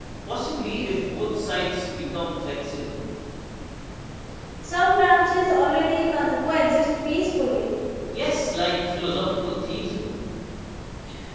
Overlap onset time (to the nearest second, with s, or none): none